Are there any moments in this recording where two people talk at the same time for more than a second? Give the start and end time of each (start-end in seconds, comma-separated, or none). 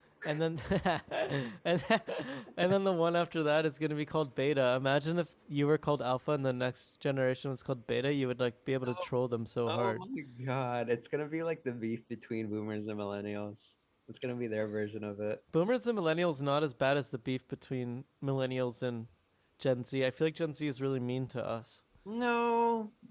none